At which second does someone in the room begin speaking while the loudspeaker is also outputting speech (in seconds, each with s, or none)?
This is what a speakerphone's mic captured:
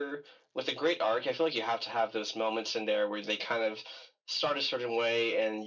none